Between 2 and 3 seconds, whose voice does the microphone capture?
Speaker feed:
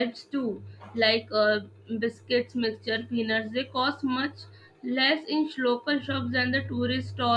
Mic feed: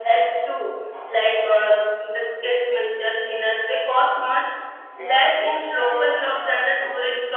echo only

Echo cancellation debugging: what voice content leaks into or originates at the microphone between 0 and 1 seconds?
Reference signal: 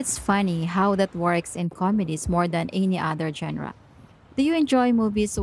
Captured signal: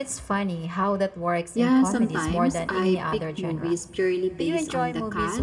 echo only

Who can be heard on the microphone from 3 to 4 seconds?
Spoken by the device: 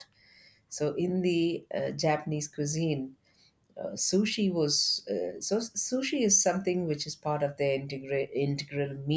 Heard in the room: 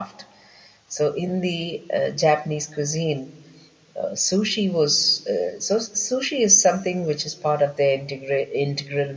echo only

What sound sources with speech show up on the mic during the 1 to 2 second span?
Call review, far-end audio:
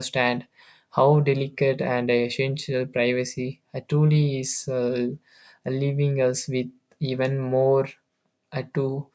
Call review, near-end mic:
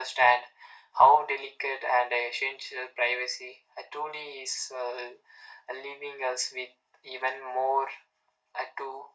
echo only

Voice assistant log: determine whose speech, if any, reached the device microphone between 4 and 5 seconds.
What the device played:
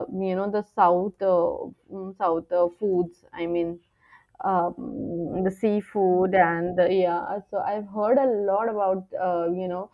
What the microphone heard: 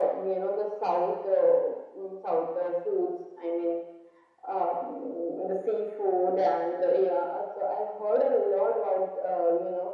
echo only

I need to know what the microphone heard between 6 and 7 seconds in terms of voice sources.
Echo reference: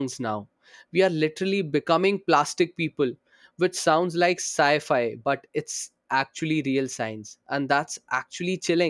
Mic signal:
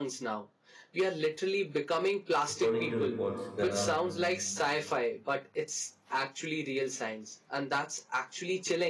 echo only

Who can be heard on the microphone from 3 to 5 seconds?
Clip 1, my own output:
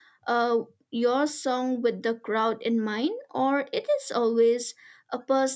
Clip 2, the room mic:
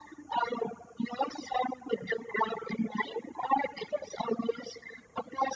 echo only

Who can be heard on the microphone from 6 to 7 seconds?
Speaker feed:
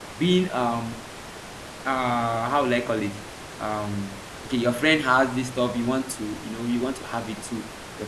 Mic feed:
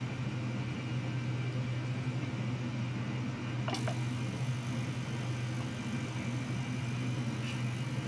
neither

